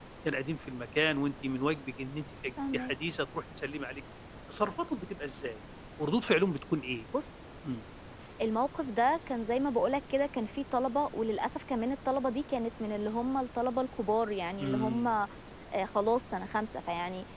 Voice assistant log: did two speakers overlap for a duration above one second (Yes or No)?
No